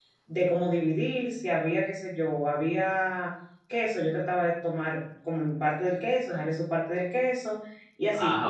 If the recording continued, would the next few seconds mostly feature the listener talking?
No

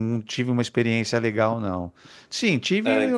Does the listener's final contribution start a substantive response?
No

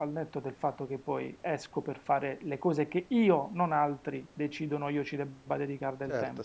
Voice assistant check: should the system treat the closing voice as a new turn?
Yes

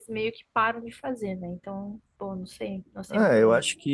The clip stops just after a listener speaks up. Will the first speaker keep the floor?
No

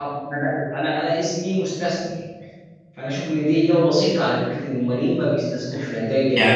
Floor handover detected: Yes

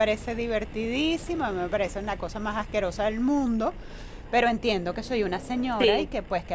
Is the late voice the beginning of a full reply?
No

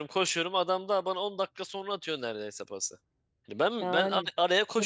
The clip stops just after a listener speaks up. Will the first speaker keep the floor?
No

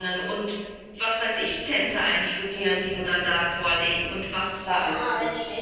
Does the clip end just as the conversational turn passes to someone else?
Yes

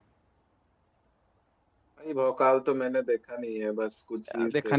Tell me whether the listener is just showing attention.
No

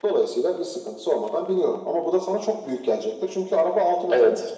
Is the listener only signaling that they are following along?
No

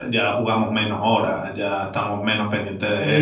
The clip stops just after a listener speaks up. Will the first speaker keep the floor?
No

